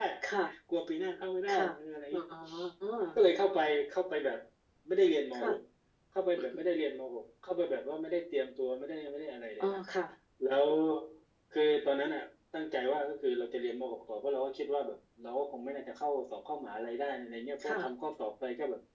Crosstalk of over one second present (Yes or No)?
No